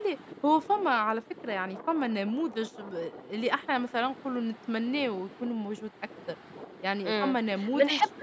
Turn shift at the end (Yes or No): Yes